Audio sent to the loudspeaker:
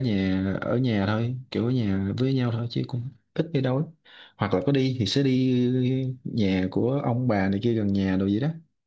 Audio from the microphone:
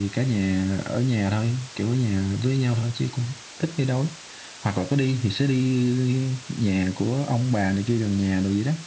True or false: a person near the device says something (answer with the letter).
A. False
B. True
A